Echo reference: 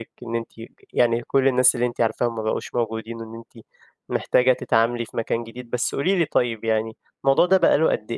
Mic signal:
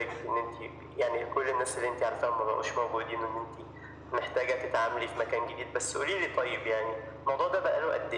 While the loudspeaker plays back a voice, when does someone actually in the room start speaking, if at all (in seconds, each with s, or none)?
none